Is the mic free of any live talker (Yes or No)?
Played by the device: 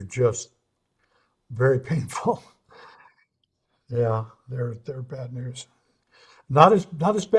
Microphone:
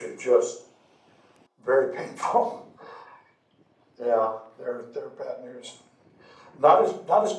Yes